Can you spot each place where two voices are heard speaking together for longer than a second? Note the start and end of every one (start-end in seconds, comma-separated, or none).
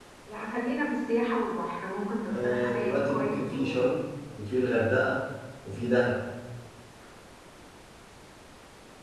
2.3-3.9